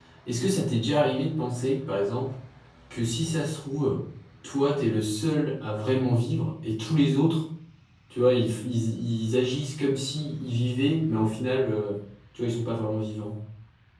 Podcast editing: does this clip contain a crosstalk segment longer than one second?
No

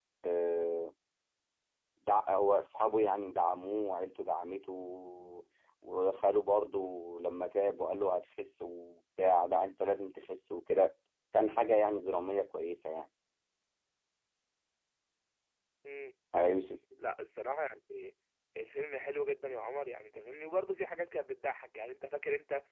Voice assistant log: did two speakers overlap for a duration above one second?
No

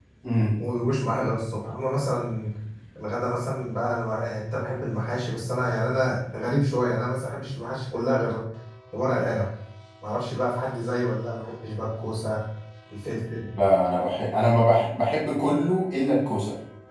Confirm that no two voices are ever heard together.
Yes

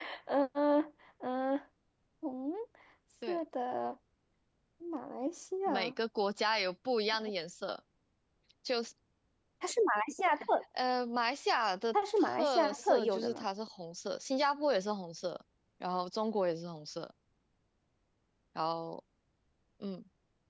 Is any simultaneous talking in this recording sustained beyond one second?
Yes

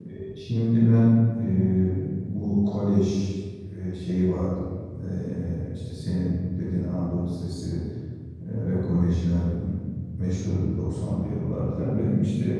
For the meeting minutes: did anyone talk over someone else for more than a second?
No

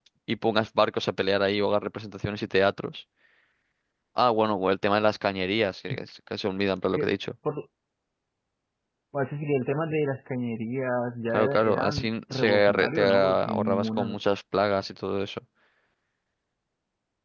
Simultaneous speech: Yes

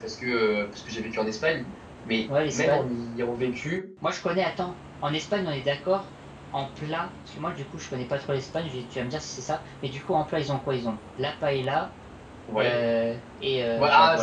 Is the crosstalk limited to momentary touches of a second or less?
Yes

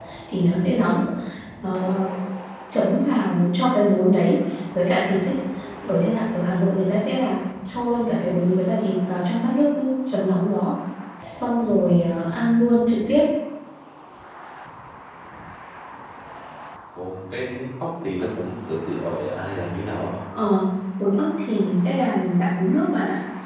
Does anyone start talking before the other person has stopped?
No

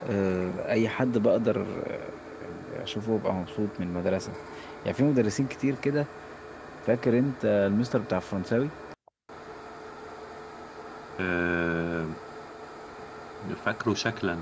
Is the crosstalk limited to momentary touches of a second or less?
Yes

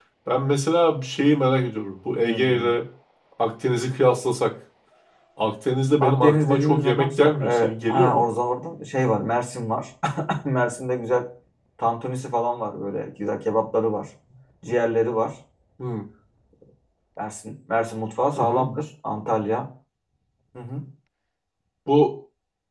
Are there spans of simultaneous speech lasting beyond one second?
Yes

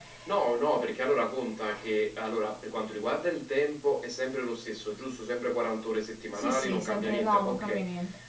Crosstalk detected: Yes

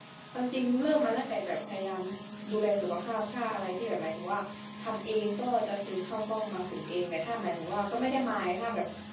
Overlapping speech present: No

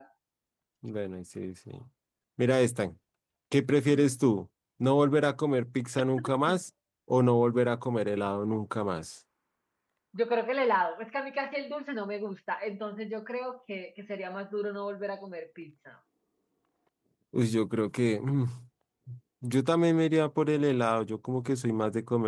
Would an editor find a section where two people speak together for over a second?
No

